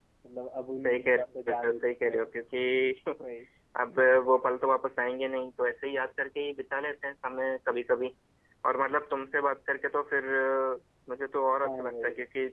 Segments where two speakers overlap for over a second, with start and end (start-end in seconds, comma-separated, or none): 0.8-2.3